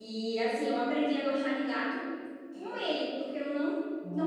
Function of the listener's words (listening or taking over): listening